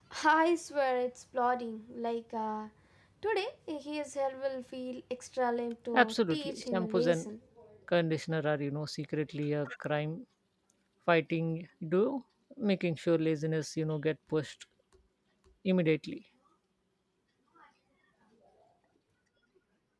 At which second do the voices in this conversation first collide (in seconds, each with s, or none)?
5.9 s